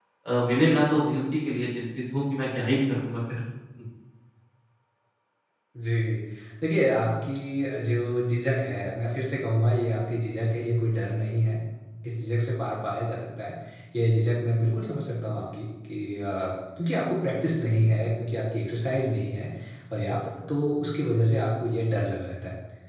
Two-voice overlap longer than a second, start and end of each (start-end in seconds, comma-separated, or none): none